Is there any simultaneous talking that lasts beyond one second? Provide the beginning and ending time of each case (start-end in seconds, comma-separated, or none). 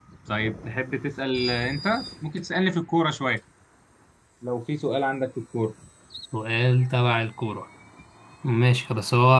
none